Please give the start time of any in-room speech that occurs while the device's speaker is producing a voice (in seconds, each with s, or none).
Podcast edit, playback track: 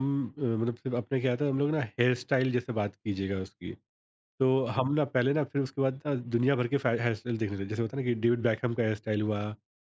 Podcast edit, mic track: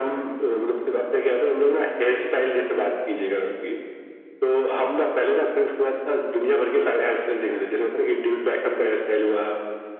none